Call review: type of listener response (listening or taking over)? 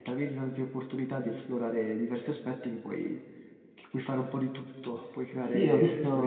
taking over